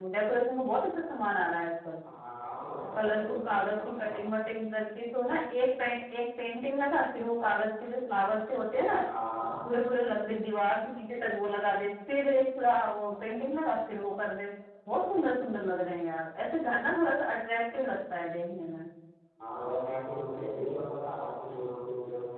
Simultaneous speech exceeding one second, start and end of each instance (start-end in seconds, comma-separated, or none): 2.9-4.4